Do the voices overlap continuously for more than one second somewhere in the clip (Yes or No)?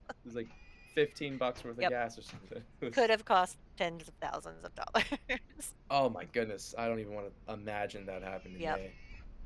No